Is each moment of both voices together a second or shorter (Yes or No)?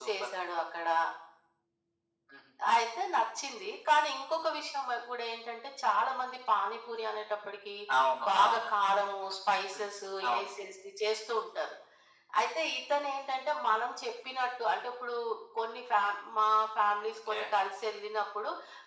Yes